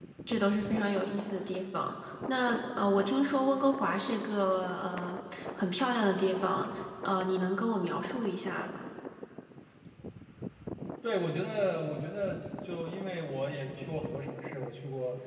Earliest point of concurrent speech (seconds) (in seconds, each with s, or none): none